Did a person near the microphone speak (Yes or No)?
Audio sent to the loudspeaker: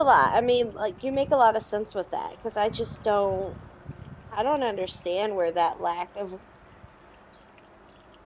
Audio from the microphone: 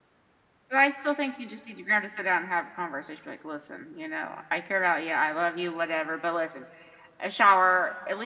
Yes